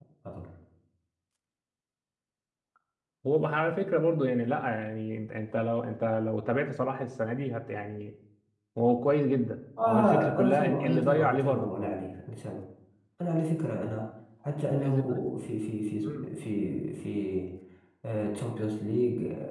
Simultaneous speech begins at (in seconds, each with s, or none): 9.9 s